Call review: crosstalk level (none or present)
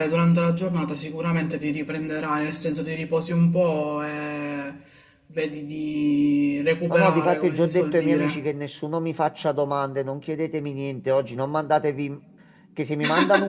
present